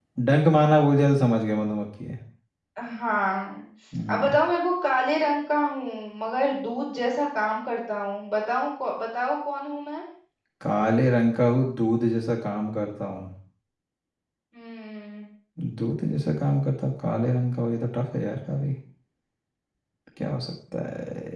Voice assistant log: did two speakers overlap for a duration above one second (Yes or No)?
No